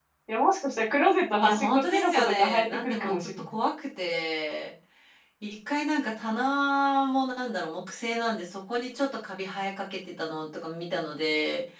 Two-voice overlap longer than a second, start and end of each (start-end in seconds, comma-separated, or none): 1.4-3.5